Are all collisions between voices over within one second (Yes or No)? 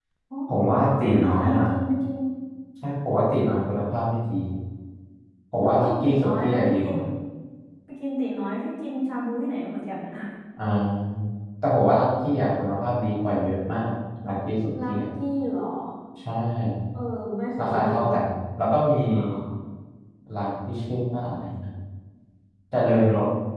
No